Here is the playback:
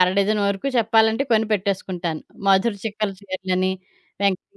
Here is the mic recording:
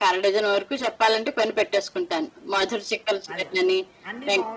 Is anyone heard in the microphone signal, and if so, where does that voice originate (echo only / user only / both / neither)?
both